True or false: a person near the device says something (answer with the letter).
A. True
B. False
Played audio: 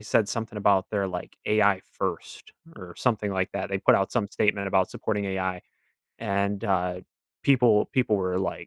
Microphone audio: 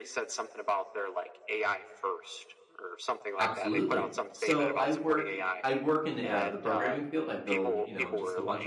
A